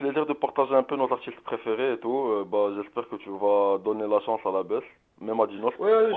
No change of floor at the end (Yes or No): No